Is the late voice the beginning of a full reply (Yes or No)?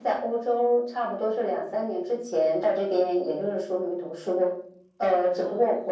No